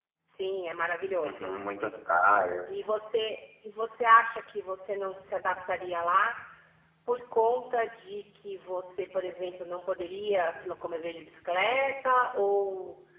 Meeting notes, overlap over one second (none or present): none